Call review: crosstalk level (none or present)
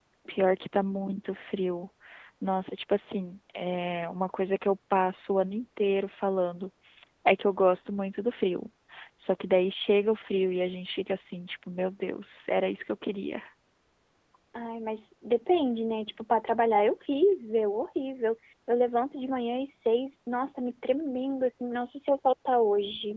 none